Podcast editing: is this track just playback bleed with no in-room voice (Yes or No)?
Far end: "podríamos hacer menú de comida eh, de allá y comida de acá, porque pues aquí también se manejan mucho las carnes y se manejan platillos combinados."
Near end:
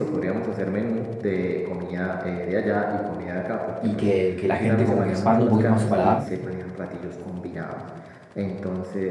No